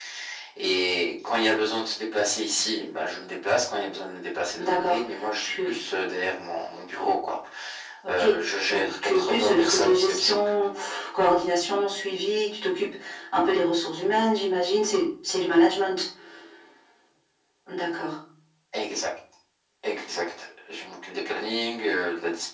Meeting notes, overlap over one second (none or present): present